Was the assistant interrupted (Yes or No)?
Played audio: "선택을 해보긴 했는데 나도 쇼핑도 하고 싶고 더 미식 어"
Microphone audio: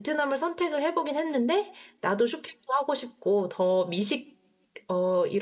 No